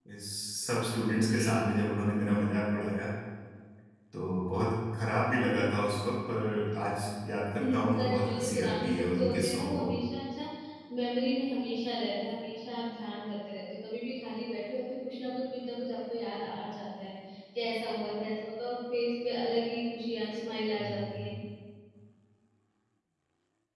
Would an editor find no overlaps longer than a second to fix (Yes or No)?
No